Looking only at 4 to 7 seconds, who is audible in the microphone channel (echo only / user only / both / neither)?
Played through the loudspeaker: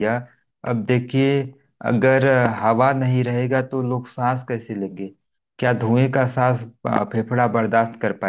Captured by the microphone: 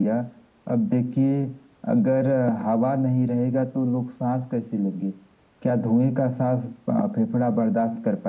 echo only